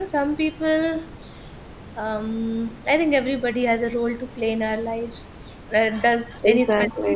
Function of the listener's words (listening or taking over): listening